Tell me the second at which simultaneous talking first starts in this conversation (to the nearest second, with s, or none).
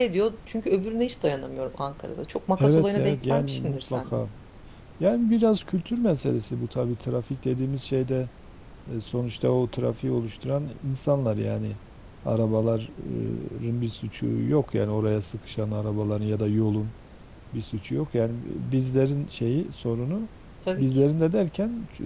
3 s